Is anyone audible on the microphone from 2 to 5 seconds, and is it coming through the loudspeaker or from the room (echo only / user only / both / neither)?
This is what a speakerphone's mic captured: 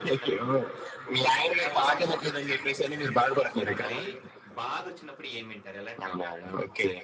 both